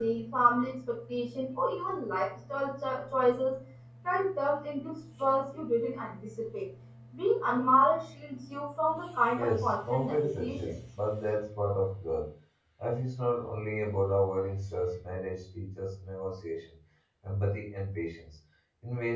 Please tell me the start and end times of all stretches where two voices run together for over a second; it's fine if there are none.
9.4-10.8

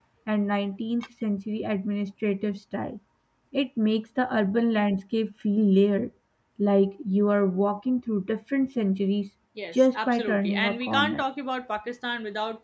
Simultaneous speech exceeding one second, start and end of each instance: 9.7-11.2

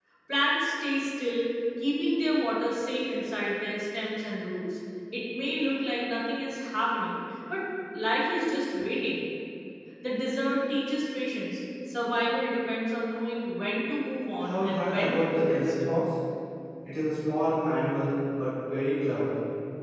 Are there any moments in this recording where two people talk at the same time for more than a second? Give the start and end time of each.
14.4-15.7

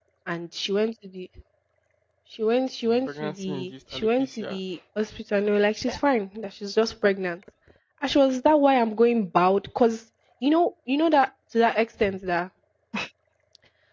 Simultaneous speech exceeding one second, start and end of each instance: 3.1-4.6

